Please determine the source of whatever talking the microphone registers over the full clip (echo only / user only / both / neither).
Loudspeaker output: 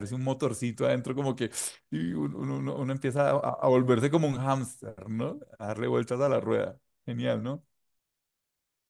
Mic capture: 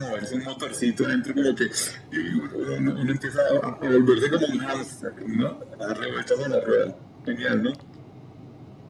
echo only